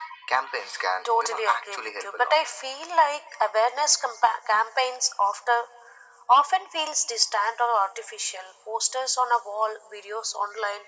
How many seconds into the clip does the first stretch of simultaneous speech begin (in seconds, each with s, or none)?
1.2 s